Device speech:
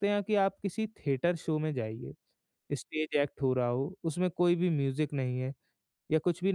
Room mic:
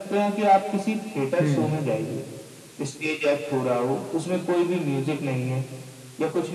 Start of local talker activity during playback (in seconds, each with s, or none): 1.4 s